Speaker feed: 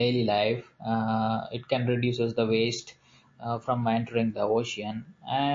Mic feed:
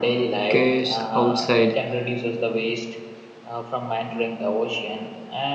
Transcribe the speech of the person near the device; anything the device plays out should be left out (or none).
case outside.